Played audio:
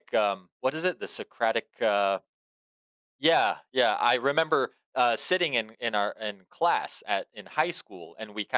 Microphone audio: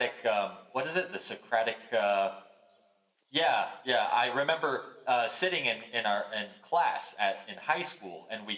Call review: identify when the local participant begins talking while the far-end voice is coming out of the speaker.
none

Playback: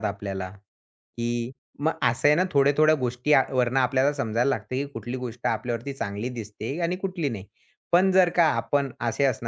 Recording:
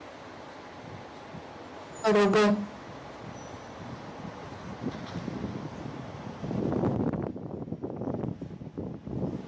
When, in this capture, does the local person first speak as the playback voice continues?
2.0 s

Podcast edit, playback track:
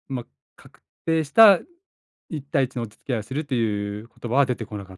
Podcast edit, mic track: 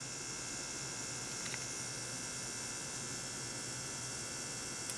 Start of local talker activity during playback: none

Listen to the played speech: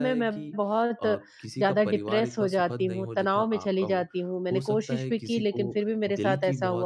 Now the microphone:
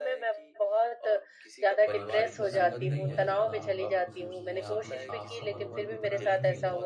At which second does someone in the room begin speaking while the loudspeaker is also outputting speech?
1.9 s

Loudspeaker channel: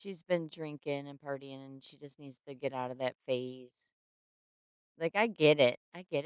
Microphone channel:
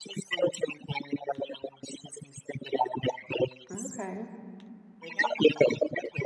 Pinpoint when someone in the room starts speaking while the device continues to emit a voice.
3.7 s

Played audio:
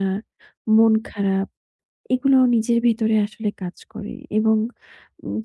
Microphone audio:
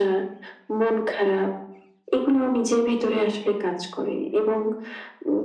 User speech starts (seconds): none

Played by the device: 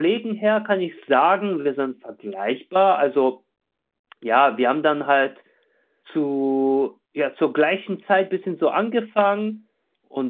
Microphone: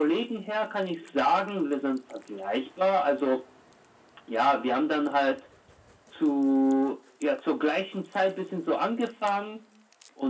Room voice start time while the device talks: none

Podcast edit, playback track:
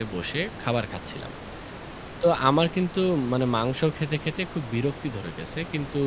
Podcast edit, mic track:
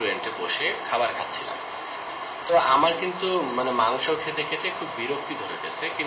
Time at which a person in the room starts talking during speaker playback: none

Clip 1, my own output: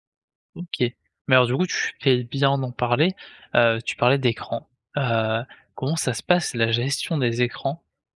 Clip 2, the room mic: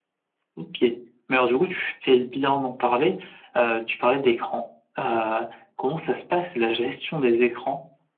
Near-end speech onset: none

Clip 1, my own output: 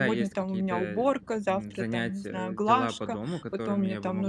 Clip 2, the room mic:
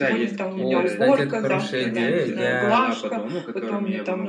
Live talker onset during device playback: 0.5 s

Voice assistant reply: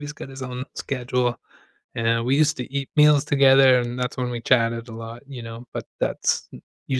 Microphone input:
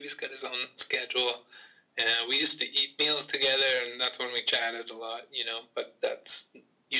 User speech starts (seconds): none

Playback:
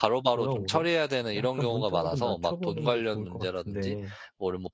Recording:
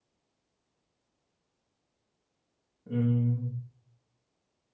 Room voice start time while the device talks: 2.9 s

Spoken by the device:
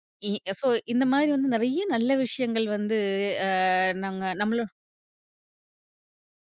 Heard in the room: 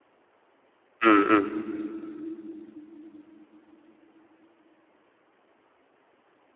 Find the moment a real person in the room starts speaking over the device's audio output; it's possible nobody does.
1.0 s

